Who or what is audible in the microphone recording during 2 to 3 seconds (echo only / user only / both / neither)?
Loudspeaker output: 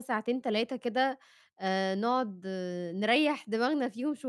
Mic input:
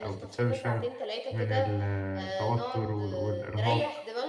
both